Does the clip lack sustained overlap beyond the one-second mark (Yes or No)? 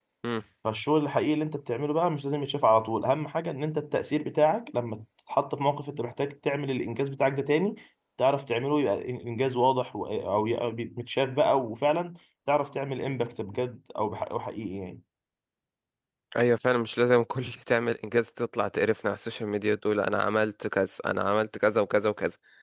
Yes